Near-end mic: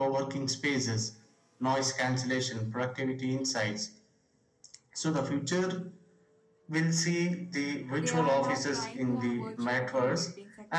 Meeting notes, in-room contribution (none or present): present